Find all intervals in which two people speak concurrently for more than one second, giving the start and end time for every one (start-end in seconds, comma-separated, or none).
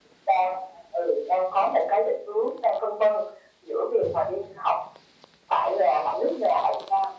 none